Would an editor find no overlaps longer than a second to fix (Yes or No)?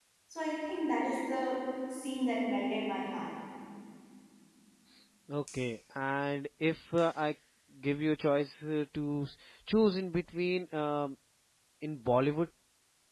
Yes